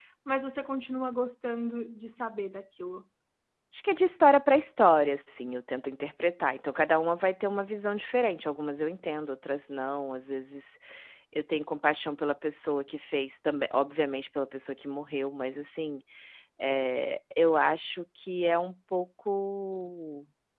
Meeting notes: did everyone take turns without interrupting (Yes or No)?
Yes